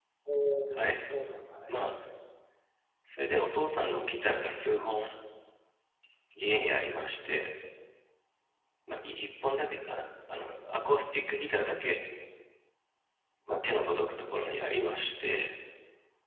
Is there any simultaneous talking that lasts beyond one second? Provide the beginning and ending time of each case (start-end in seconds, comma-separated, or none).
none